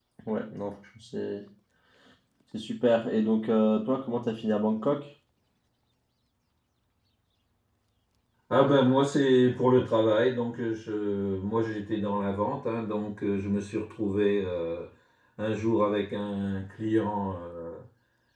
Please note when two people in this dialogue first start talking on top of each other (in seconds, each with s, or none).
none